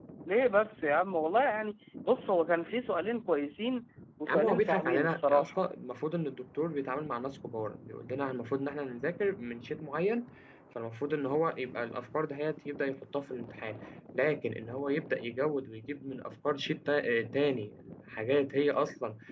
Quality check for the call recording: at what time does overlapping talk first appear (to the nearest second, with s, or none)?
4 s